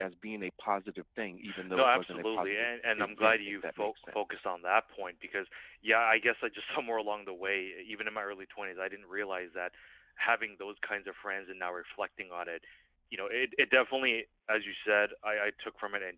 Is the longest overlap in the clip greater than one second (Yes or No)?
Yes